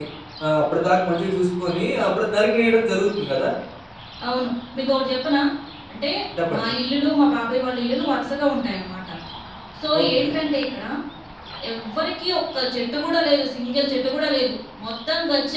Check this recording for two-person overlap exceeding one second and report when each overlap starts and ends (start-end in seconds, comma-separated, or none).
none